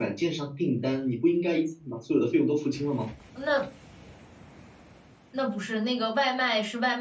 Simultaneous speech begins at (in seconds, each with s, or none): none